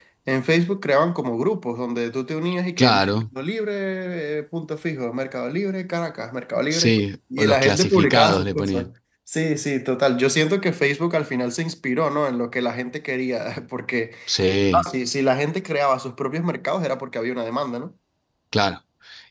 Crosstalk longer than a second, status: present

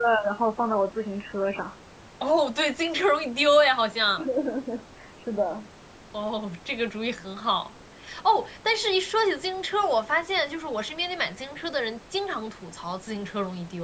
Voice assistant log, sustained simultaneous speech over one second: none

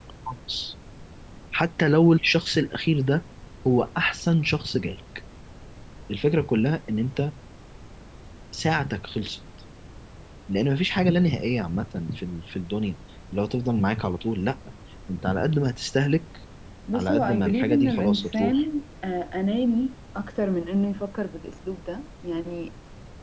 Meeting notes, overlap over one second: present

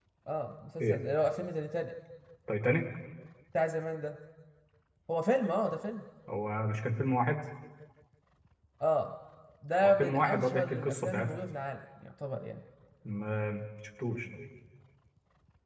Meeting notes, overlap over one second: present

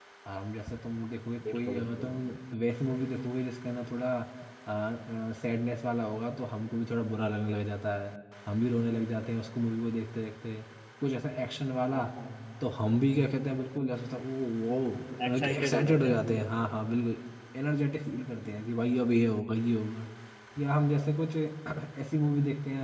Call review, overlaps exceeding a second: present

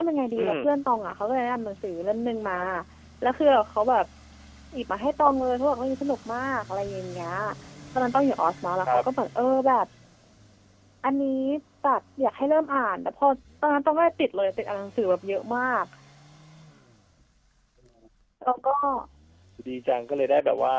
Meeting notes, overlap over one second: none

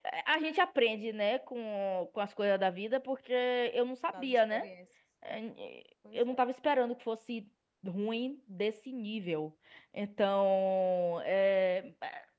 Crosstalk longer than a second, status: none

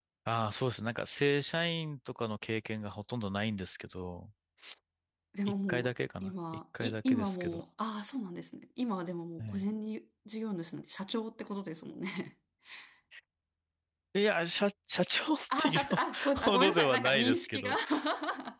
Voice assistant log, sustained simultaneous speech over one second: present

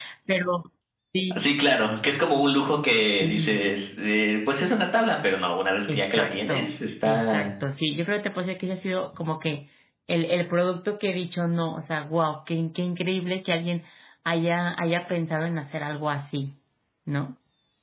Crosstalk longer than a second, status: present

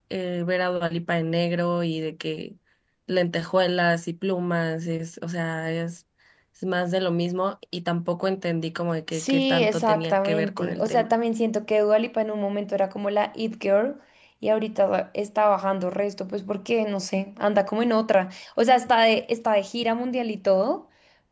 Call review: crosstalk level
present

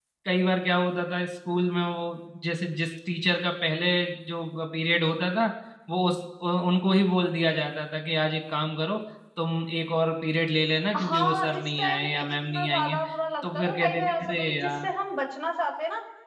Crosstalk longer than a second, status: present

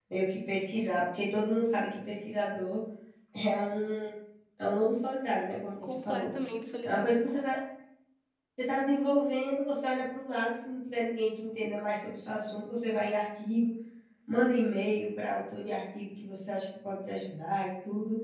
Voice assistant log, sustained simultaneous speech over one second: none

